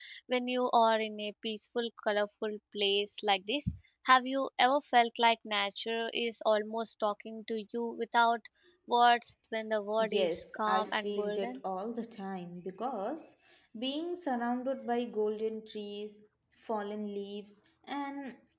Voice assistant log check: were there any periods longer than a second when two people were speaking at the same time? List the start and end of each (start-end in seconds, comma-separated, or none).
10.0-11.6